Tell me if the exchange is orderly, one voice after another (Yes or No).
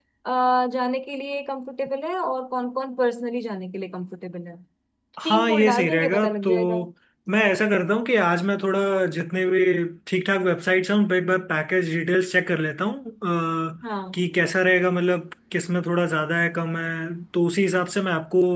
No